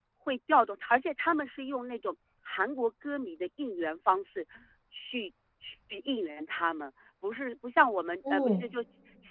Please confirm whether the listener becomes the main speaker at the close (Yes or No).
No